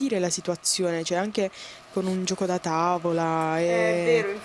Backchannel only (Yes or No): No